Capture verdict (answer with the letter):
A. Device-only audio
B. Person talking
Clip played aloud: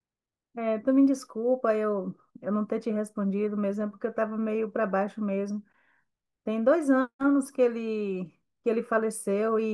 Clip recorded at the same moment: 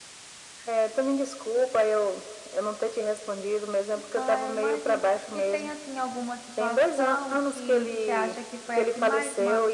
B